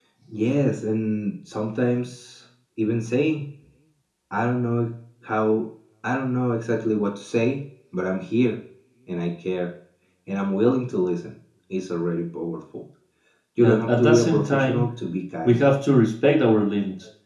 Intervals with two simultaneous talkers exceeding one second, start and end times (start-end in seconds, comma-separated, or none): 13.6-14.9